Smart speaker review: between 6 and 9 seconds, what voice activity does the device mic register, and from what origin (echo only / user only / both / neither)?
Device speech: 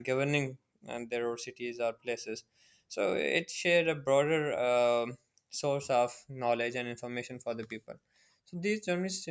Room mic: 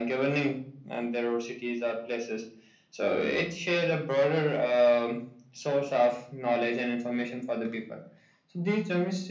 echo only